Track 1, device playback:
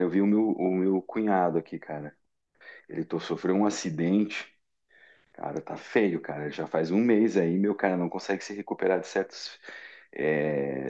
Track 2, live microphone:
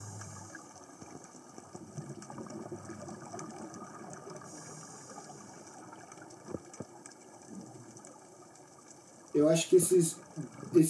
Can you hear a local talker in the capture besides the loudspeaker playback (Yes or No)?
Yes